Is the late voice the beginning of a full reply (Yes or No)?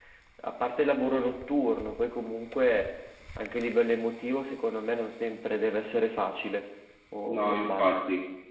Yes